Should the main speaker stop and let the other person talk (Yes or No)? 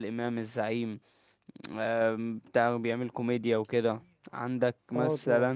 No